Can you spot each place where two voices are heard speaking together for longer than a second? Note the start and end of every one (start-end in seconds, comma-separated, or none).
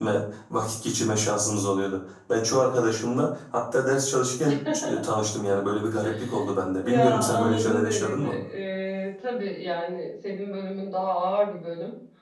6.8-8.3